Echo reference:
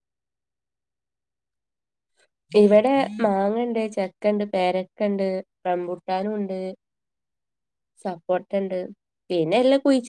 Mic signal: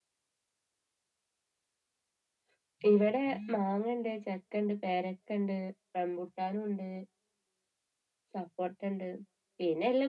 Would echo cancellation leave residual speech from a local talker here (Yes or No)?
No